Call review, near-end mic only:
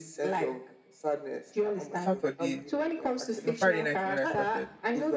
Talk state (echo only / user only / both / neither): both